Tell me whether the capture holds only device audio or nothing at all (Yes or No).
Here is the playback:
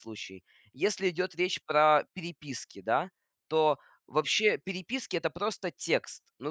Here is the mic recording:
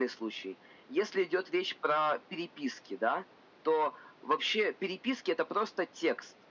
Yes